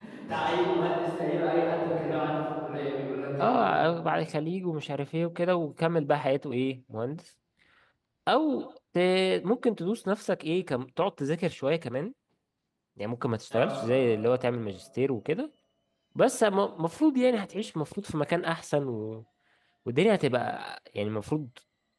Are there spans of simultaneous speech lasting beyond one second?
No

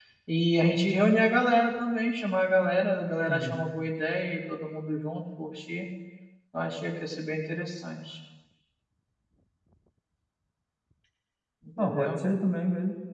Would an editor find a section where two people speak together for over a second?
No

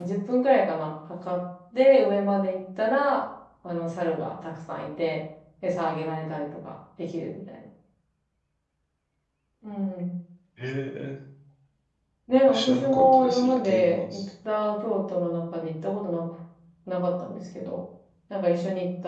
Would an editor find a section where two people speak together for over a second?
Yes, from 12.5 s

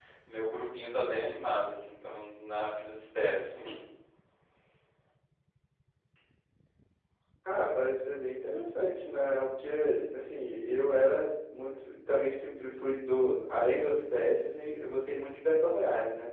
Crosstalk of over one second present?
No

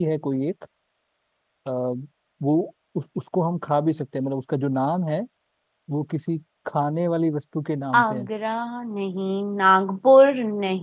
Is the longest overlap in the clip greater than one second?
No

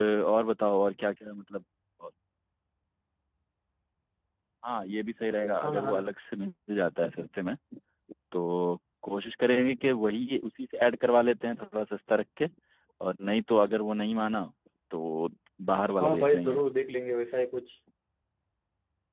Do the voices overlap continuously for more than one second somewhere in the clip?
No

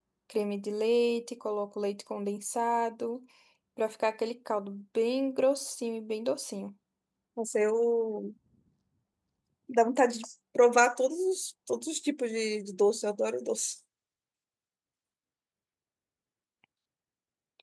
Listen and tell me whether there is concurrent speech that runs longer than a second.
No

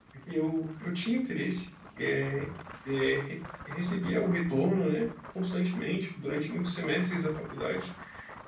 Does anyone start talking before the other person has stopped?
No

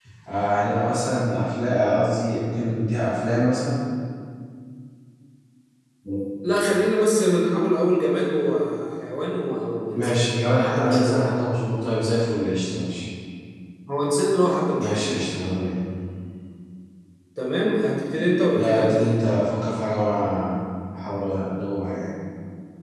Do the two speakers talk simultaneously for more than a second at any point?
Yes, from 9.9 s

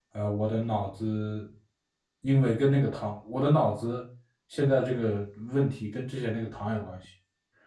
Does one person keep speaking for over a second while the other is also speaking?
No

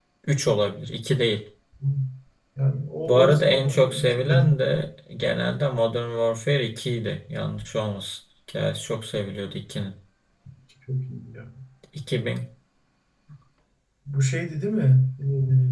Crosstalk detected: Yes, from 3.1 s

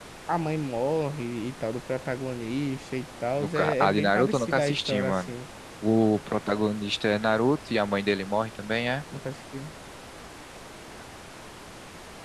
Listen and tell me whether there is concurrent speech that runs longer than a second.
Yes, from 3.4 s

